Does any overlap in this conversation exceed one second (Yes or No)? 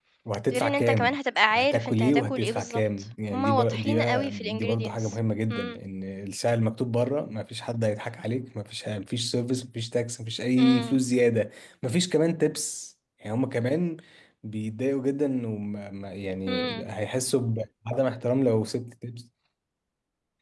Yes